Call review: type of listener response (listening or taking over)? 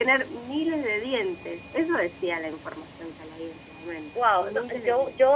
taking over